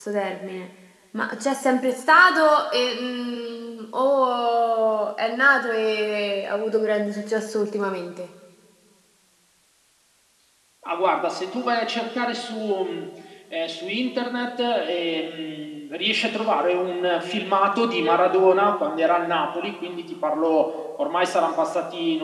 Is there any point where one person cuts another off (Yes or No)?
No